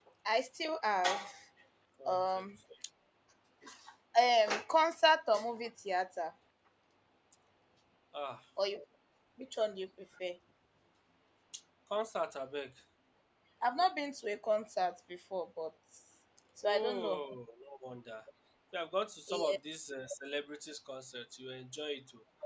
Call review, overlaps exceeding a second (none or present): none